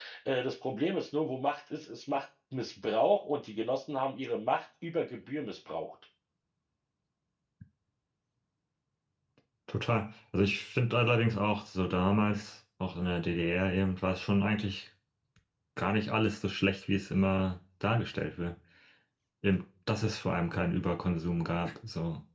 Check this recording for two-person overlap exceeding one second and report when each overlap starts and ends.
none

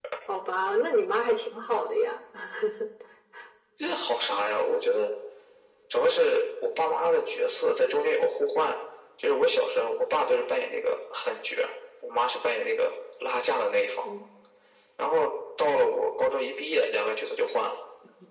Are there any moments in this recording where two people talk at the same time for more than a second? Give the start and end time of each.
none

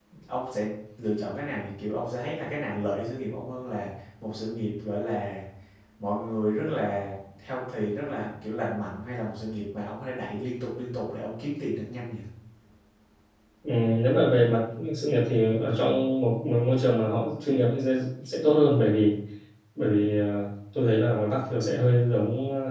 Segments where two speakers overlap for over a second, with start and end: none

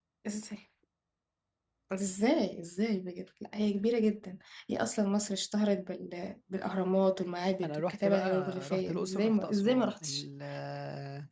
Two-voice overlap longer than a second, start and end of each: 7.6-10.2

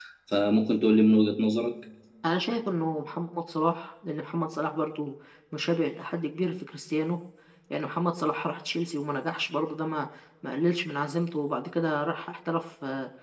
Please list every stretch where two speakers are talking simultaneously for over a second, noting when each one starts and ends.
none

